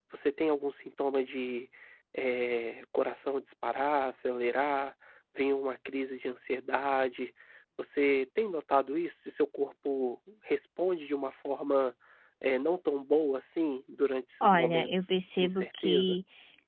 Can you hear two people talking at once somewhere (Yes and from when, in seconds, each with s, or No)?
Yes, from 14.4 s